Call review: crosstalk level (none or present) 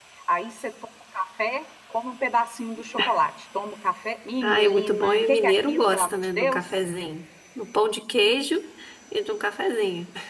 present